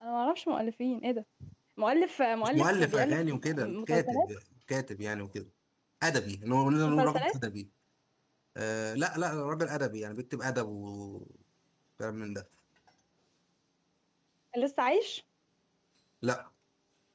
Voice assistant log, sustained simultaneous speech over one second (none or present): present